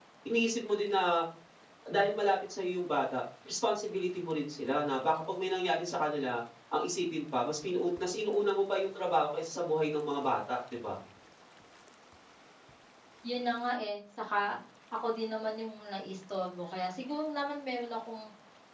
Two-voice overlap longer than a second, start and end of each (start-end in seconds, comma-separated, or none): none